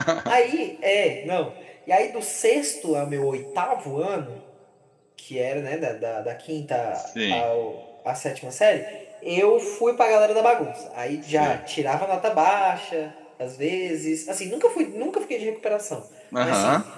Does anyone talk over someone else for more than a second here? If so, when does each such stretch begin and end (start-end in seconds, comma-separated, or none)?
none